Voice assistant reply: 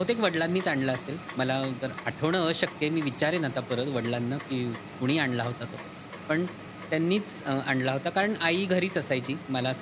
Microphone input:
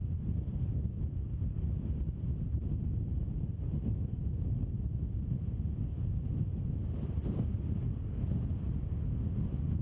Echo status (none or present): none